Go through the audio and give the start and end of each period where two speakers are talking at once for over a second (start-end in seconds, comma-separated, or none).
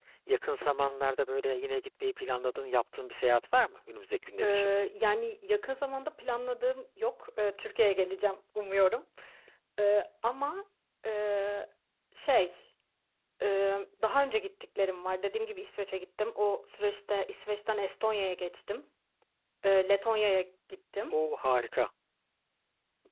none